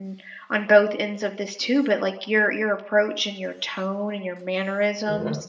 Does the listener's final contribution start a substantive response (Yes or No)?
Yes